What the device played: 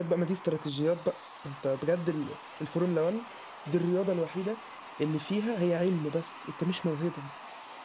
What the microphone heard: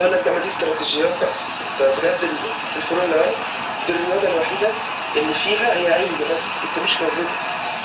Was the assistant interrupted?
No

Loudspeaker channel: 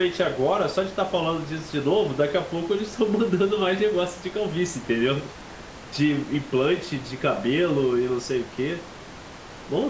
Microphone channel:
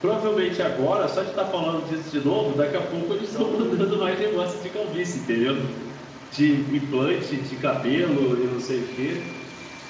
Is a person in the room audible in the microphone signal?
Yes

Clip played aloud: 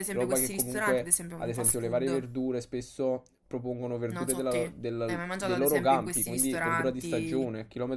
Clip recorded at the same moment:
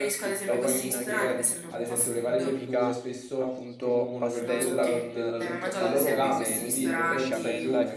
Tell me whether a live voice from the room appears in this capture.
Yes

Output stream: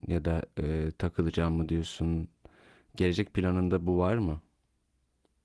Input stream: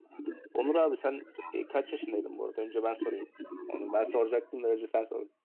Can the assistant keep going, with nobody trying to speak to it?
No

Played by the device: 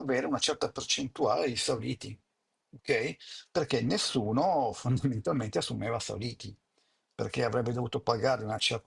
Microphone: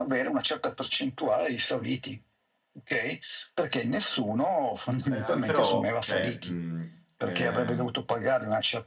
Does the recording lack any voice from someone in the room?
No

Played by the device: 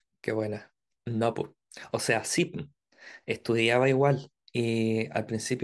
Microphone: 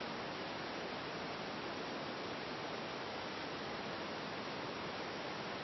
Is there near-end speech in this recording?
No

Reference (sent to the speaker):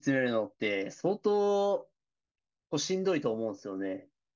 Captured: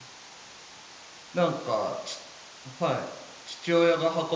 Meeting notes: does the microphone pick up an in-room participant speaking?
Yes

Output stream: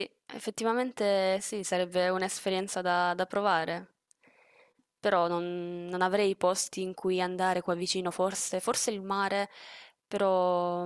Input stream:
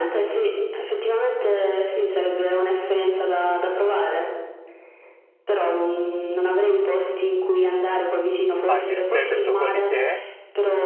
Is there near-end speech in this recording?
Yes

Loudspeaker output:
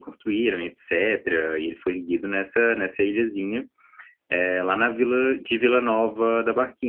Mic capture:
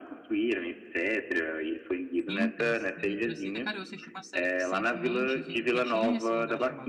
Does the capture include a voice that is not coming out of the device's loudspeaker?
Yes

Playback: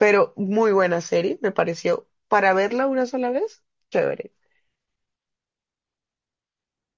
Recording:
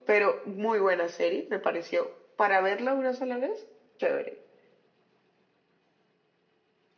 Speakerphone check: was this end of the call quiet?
Yes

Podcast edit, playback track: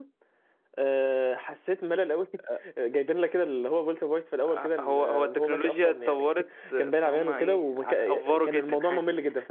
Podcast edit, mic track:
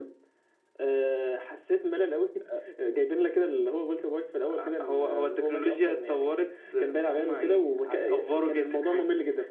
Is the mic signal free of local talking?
Yes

